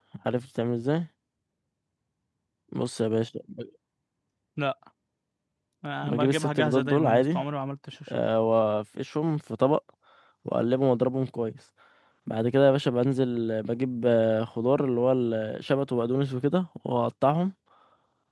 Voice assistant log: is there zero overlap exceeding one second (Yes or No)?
No